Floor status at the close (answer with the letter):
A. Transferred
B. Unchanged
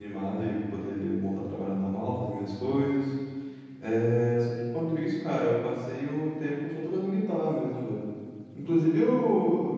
B